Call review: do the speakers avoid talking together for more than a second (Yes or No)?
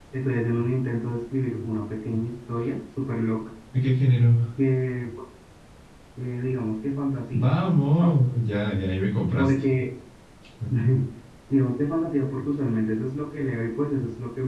Yes